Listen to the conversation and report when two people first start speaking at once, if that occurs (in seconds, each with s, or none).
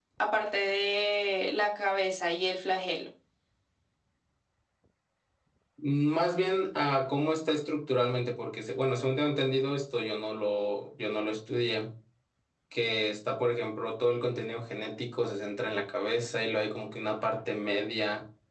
none